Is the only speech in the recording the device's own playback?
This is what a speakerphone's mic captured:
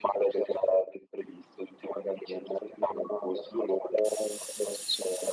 Yes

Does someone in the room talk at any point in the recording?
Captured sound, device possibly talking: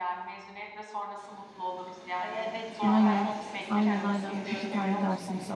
Yes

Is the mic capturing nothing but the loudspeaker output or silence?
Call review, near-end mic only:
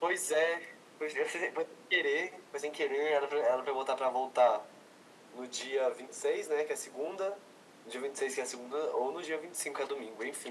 Yes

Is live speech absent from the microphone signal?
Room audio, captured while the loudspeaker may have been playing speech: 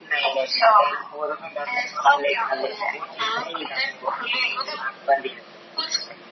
Yes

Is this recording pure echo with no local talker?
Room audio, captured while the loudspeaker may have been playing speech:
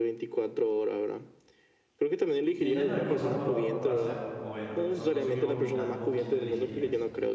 No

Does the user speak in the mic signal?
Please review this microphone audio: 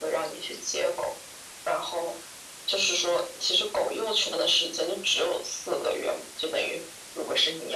No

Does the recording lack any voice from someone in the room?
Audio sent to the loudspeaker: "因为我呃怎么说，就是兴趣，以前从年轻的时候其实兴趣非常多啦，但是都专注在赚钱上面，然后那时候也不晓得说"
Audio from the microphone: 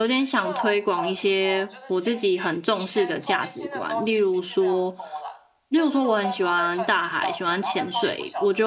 No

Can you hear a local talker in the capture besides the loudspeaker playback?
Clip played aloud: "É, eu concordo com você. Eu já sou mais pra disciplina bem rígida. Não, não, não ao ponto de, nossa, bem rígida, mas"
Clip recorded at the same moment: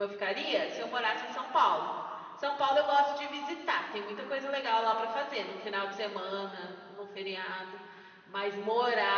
Yes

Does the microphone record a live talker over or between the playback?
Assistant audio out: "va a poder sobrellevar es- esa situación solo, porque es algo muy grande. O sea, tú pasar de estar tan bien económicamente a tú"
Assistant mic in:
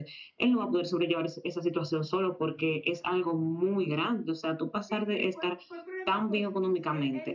Yes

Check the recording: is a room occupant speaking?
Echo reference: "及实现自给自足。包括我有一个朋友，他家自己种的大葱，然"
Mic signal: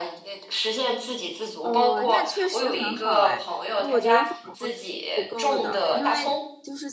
Yes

